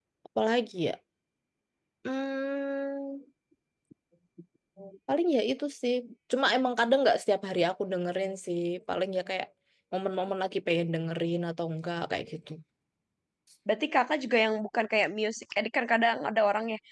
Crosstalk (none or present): none